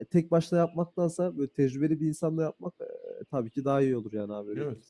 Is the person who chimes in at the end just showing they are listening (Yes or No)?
No